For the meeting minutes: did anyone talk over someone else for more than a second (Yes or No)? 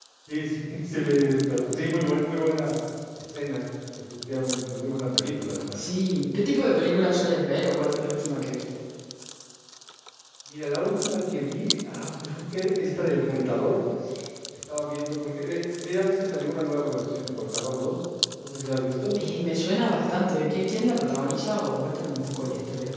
No